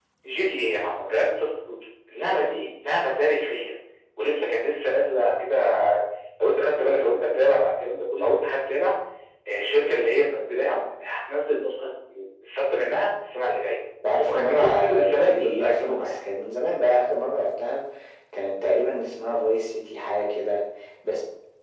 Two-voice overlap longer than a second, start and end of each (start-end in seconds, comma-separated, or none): 14.3-16.1